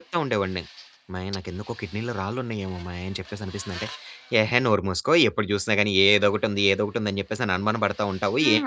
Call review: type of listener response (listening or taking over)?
taking over